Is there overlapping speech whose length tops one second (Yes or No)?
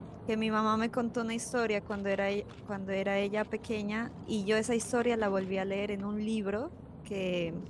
No